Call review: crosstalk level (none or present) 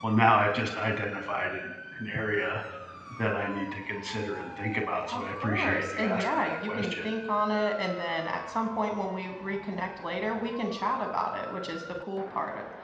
present